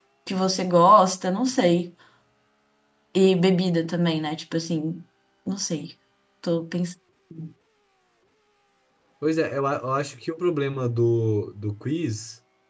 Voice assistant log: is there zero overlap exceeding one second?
Yes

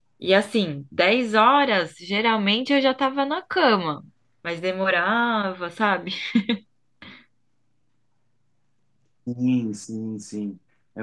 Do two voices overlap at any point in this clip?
No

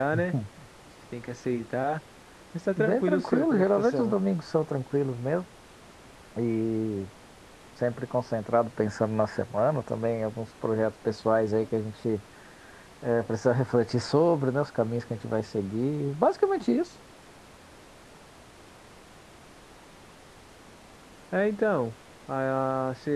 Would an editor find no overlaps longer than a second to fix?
No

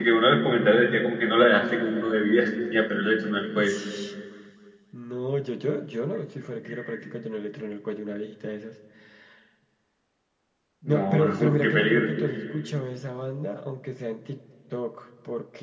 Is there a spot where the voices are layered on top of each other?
Yes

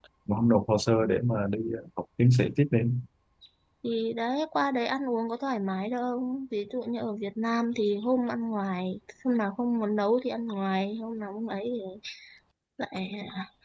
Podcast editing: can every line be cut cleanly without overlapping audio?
Yes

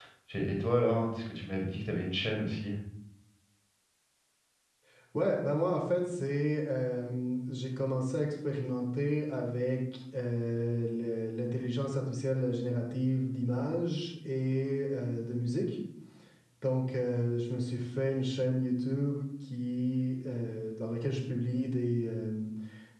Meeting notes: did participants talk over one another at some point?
No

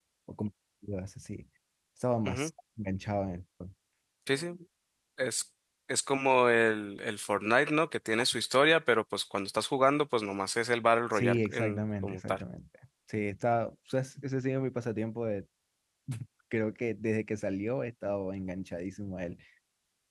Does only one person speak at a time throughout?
No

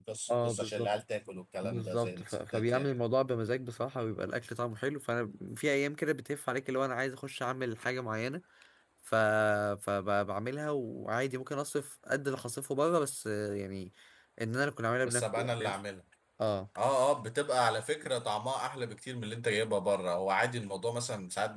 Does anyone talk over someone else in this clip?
Yes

